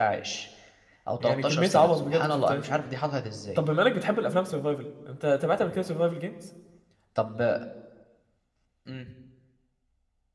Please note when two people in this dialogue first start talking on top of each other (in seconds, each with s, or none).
1.2 s